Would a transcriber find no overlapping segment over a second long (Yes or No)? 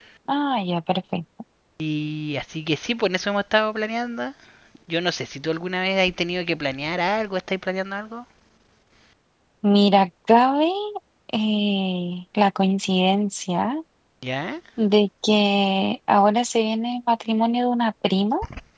Yes